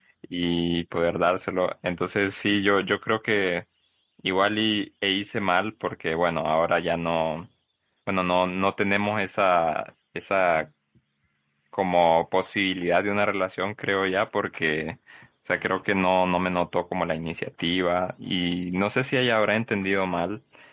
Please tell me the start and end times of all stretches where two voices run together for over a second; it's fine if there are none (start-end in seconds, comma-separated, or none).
none